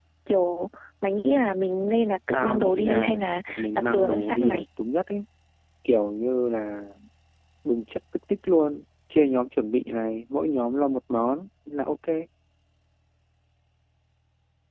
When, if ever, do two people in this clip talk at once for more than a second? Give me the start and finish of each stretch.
2.3-4.6

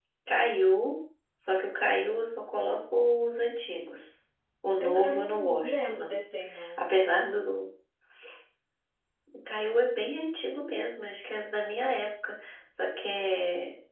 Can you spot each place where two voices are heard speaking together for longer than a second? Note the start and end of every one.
4.8-6.2

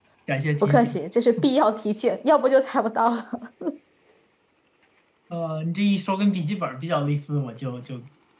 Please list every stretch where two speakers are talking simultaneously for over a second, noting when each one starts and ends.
none

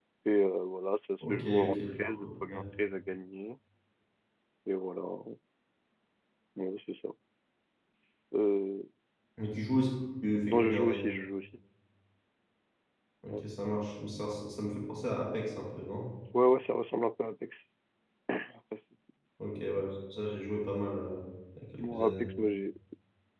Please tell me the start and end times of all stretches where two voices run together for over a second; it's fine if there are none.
1.2-2.6

